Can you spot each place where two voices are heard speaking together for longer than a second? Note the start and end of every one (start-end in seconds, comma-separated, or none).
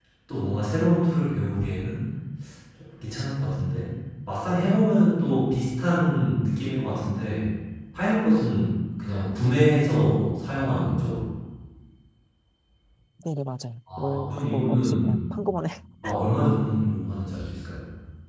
14.0-15.2